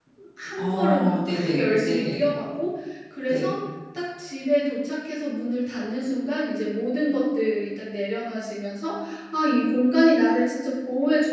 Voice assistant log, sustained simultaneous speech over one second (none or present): present